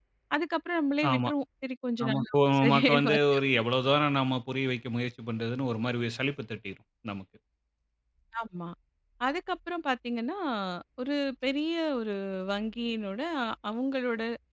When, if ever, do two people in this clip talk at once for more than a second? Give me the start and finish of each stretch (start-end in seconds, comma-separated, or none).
2.0-3.3